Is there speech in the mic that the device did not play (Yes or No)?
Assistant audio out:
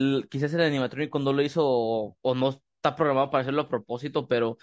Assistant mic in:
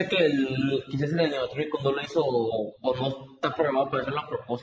No